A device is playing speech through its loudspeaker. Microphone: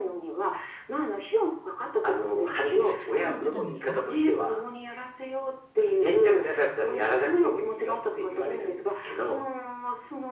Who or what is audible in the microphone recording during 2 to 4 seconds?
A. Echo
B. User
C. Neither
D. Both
D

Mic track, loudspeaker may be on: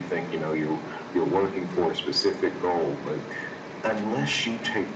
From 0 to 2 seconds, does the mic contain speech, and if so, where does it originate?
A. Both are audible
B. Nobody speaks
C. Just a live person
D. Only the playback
D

